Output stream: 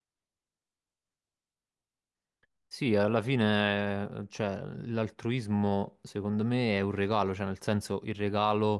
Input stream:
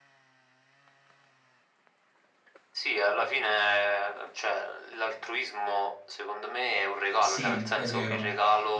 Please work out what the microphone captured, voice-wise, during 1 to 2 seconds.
neither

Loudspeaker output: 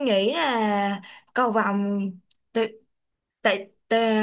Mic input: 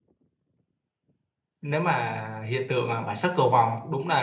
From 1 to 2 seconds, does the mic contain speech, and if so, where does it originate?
user only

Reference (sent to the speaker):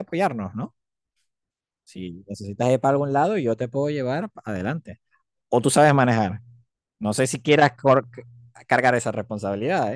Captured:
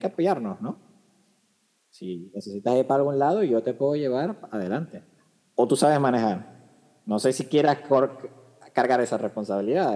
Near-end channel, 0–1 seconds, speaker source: echo only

